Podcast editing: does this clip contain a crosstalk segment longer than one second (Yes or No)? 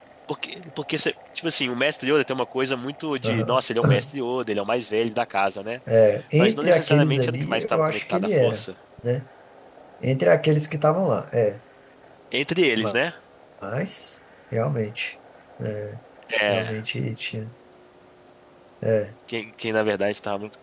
Yes